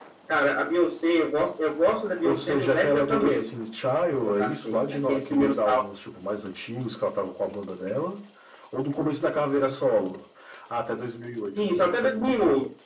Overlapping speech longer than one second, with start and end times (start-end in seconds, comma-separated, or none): 2.2-3.5, 4.1-5.8